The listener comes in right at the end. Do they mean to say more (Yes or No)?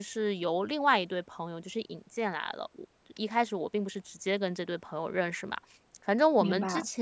No